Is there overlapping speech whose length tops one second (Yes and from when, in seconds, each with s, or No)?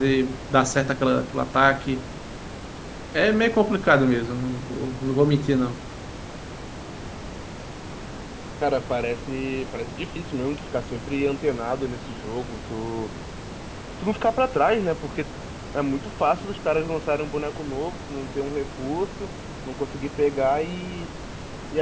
No